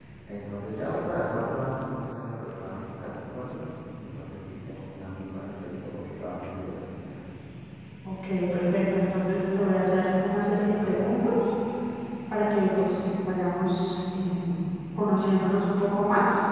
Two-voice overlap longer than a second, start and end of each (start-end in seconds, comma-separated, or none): none